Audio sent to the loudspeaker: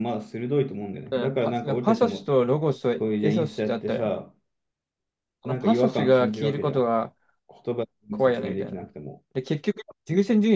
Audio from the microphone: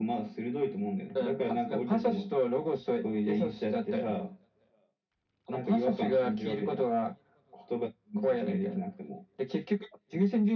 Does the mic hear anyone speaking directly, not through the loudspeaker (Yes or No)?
No